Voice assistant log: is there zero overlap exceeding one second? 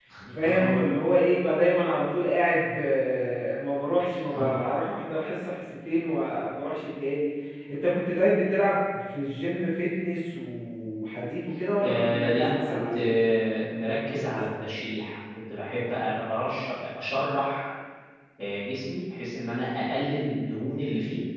No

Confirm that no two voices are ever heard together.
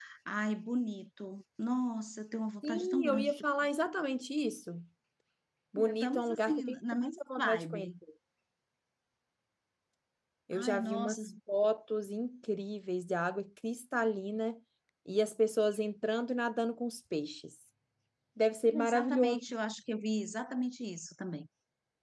No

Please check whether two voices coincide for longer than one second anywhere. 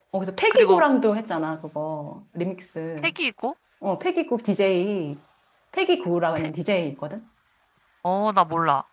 No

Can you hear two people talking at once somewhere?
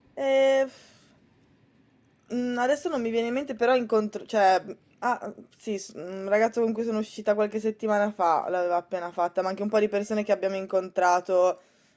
No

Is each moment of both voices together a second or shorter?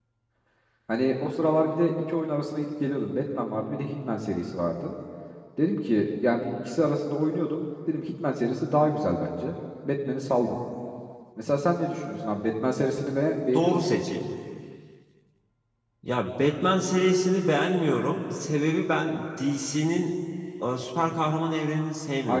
Yes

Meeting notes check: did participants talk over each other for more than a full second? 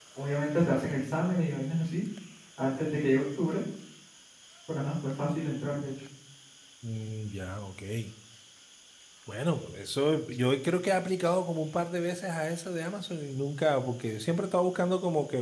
No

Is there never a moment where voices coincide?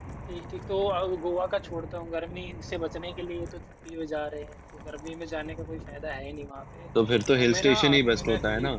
No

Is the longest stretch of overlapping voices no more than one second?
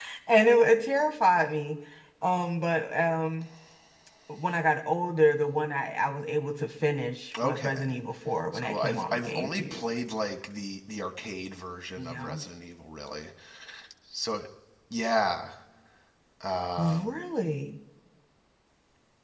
No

